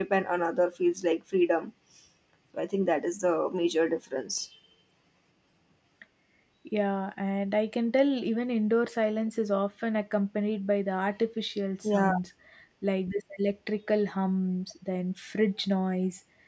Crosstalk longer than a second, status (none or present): none